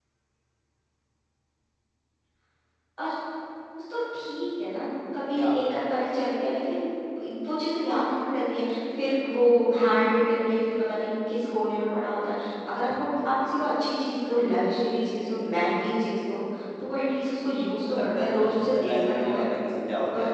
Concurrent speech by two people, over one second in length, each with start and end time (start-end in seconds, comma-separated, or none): 17.9-19.4